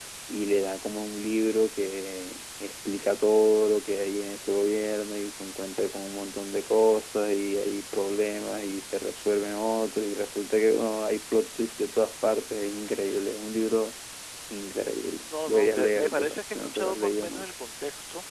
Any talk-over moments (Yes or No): Yes